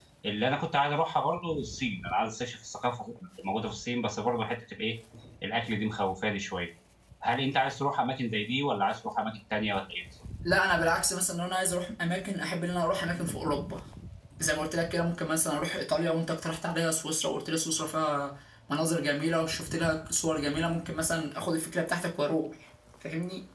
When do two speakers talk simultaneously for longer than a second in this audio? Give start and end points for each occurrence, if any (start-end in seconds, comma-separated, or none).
none